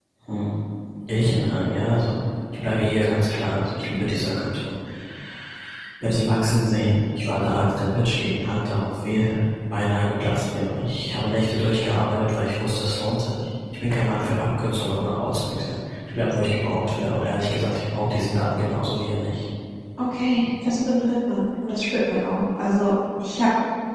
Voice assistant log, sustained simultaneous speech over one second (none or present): none